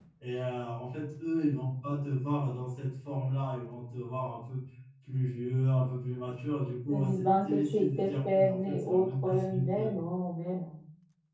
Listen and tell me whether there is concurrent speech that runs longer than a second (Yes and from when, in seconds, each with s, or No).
Yes, from 6.9 s